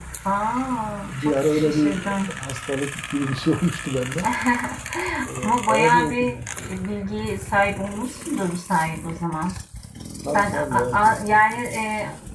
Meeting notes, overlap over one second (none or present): present